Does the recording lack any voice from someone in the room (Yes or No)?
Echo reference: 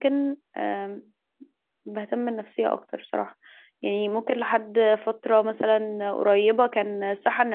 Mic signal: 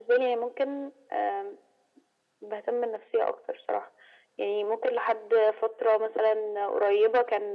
Yes